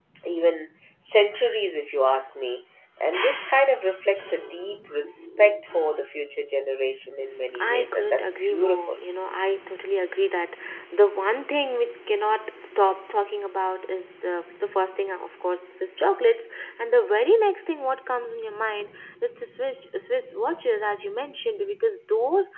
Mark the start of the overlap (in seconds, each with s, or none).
7.5 s